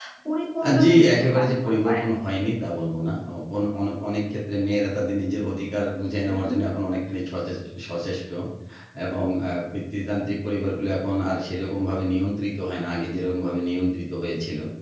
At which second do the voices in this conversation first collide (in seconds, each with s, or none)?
0.6 s